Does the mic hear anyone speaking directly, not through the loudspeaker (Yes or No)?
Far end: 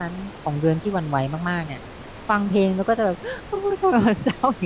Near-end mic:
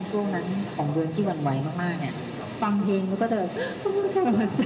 Yes